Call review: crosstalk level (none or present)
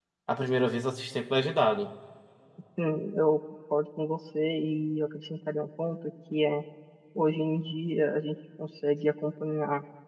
none